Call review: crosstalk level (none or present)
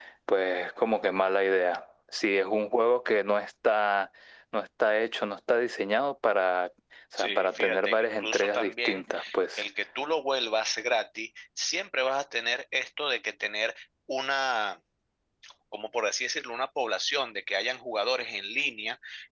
present